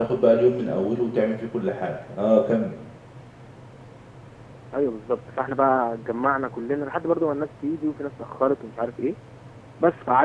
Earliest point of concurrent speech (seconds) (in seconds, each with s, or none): none